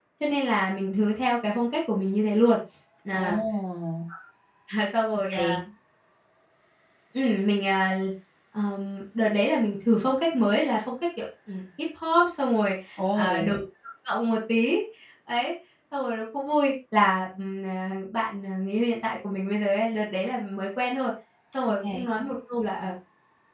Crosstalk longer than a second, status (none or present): none